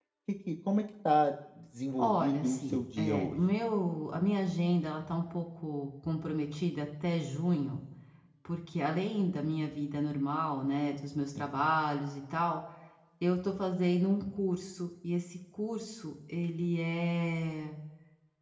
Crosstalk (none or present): present